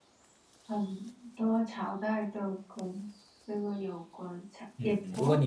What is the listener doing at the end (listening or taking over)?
taking over